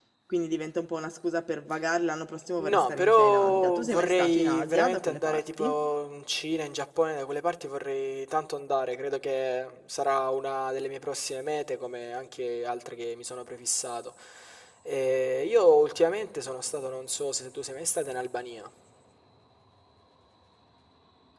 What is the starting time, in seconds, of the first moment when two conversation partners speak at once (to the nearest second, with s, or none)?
3 s